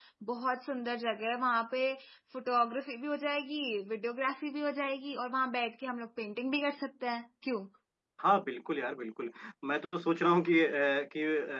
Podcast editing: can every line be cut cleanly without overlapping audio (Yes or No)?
Yes